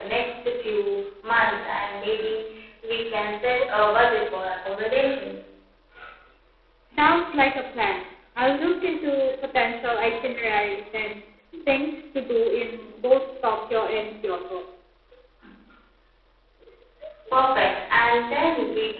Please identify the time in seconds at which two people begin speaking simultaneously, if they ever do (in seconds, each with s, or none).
none